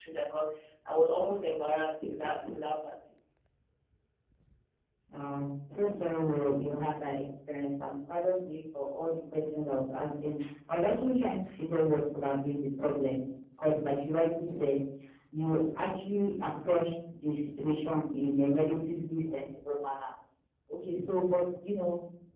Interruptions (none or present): none